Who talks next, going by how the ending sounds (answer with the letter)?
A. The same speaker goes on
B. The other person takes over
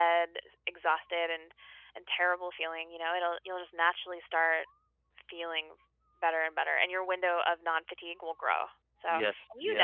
A